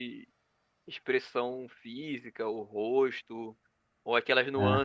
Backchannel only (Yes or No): Yes